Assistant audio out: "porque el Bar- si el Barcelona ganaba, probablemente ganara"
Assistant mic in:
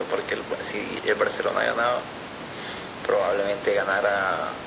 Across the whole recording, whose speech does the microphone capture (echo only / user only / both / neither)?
echo only